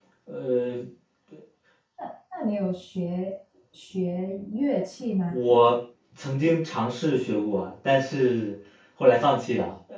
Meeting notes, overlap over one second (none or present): none